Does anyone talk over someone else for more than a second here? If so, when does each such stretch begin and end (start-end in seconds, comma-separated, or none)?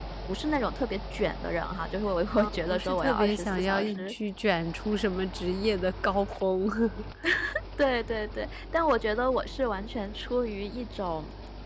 2.3-4.1